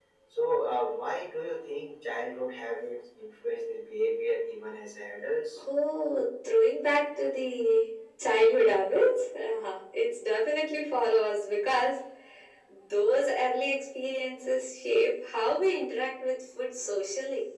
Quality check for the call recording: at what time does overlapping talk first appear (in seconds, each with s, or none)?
none